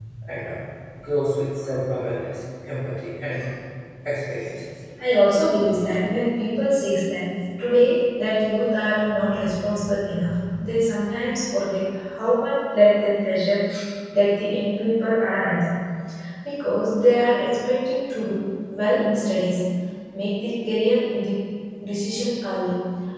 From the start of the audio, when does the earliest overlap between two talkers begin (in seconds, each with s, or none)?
none